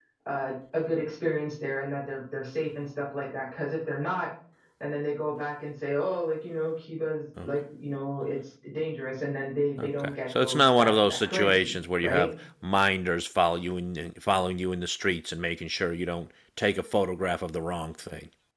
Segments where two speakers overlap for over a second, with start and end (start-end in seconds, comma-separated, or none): 9.8-12.3